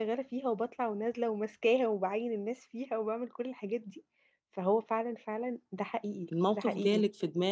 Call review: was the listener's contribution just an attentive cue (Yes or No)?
No